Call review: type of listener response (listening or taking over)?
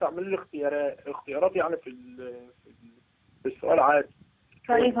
taking over